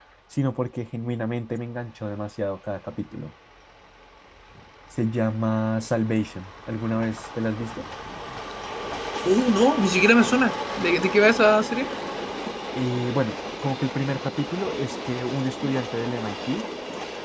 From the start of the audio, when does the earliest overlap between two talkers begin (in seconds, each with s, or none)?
none